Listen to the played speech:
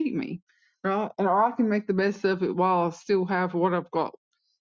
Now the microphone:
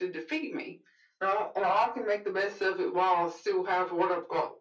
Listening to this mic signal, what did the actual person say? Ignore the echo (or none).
none